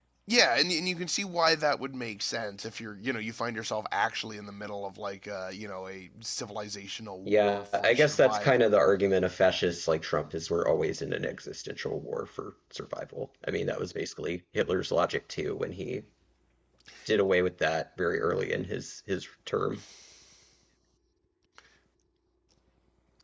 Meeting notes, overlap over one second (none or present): present